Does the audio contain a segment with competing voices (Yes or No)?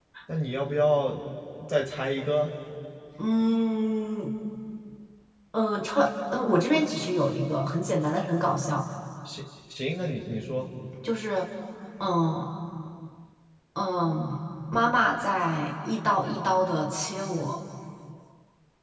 No